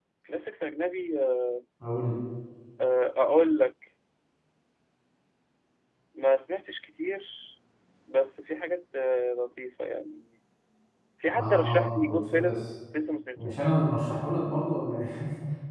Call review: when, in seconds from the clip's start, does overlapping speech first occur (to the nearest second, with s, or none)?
11 s